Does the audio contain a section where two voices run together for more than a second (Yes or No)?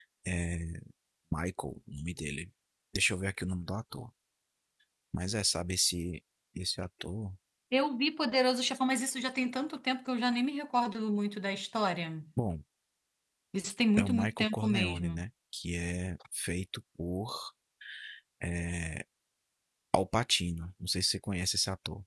Yes